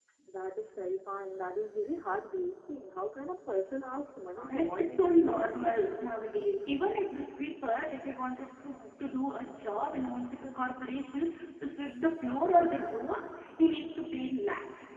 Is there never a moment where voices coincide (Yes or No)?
No